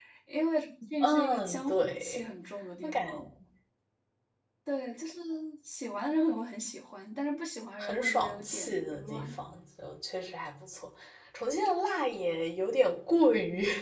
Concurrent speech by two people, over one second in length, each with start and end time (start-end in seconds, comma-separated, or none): 1.0-2.2, 7.8-9.4